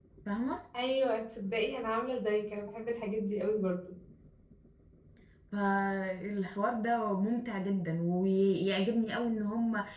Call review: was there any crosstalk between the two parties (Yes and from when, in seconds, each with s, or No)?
No